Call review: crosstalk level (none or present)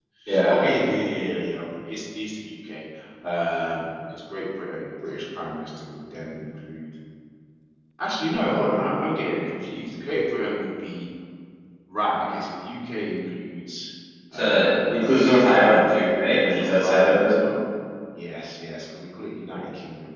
present